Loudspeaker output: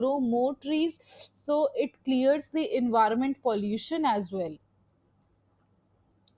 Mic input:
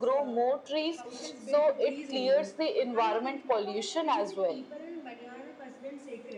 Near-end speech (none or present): present